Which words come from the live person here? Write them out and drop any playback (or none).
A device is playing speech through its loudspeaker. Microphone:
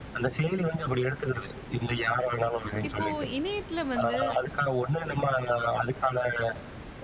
இப்போ இணையத்துல வந்து